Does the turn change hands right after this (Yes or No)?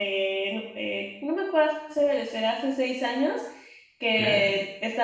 No